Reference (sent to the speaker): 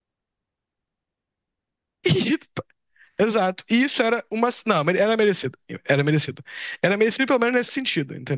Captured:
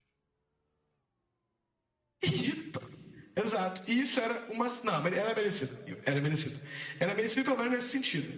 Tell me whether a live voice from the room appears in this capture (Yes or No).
No